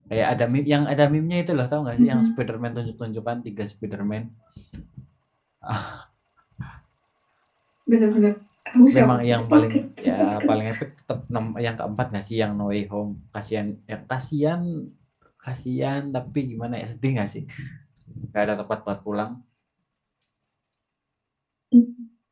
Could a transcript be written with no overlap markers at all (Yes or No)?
No